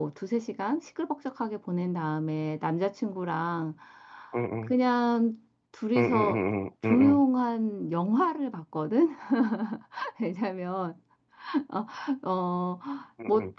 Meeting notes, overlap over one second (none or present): none